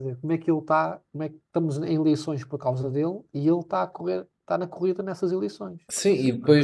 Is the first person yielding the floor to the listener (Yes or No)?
Yes